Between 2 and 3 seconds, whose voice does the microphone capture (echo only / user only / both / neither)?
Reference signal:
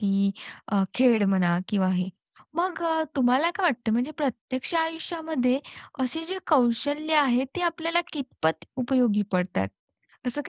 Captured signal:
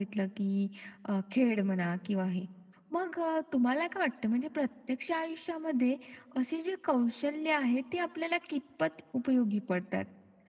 echo only